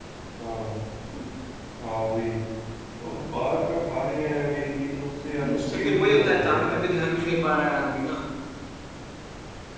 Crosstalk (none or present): present